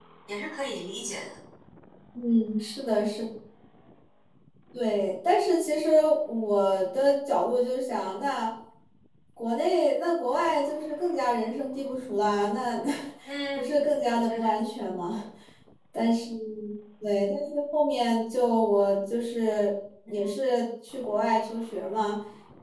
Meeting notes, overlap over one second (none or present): none